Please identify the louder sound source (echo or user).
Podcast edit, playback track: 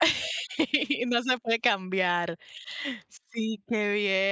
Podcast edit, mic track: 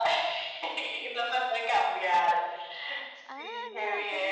echo